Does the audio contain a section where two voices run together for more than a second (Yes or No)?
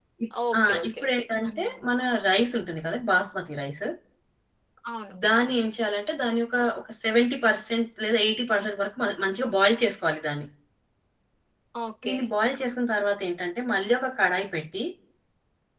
Yes